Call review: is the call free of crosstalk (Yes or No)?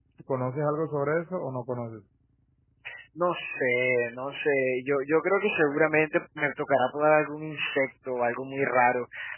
Yes